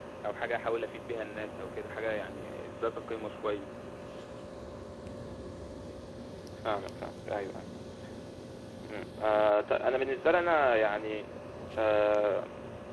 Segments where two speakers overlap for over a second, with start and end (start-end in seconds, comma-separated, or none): none